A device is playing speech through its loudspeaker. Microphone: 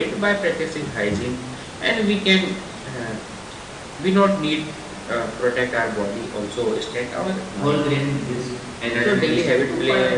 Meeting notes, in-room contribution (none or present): present